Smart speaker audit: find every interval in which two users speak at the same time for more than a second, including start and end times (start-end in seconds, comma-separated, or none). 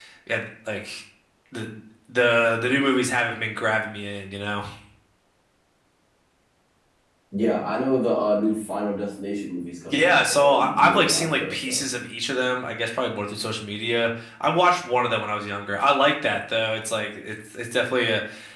9.9-11.8